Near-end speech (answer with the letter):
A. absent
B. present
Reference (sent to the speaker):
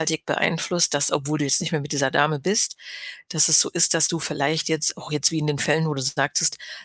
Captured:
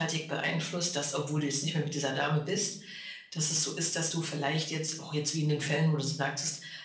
A